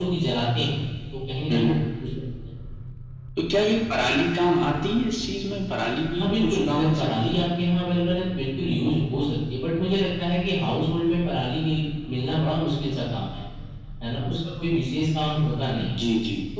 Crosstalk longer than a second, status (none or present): present